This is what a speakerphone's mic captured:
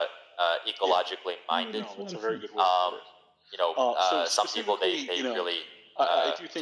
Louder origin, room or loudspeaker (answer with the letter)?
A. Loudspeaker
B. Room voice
A